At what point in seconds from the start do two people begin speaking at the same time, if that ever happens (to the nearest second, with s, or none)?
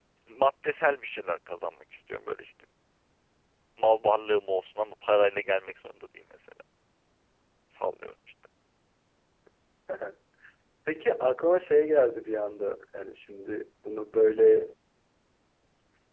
none